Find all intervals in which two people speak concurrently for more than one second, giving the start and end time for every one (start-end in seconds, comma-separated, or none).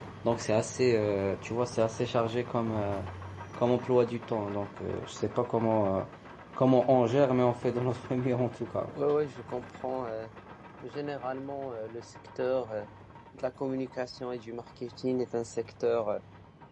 none